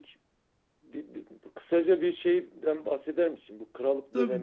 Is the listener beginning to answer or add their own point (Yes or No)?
No